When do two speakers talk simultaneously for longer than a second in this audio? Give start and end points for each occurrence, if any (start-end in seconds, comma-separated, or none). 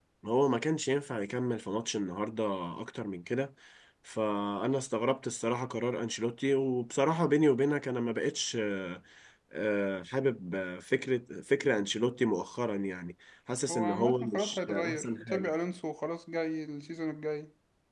13.7-15.5